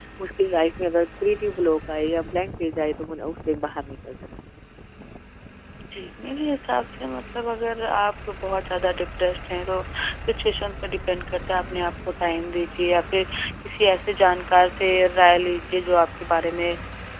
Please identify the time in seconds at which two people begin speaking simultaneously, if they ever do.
none

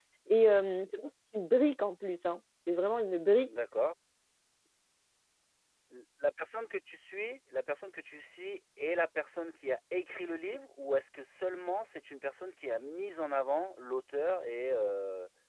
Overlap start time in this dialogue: none

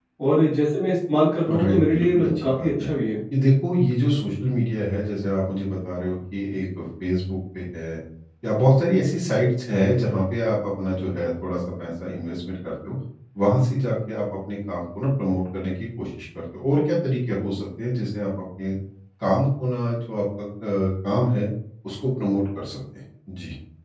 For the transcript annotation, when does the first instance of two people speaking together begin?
1.5 s

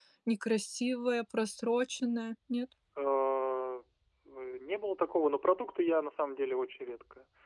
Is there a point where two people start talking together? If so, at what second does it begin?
none

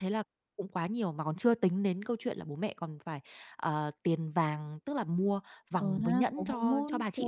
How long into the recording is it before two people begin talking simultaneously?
5.8 s

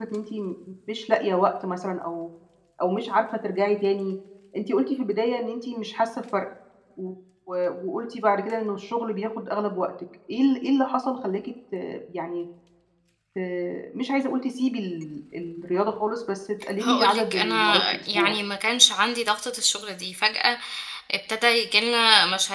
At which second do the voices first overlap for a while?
16.8 s

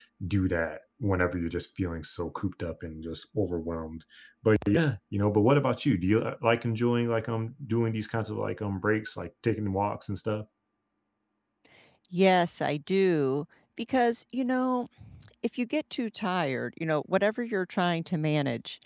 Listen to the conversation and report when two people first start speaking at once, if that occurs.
none

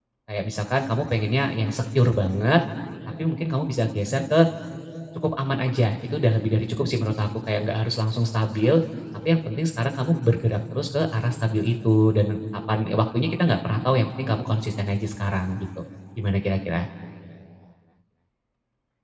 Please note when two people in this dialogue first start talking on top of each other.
none

